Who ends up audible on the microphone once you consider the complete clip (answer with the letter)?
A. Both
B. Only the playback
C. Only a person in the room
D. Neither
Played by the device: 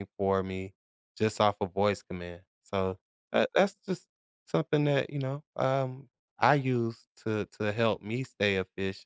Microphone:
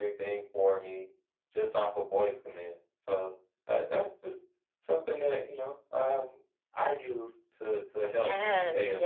A